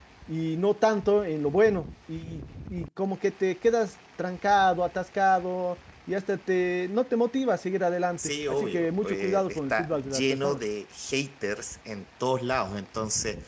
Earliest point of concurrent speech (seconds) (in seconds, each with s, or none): 8.2 s